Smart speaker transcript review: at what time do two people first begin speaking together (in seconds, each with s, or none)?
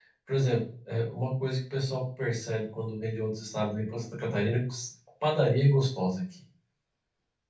none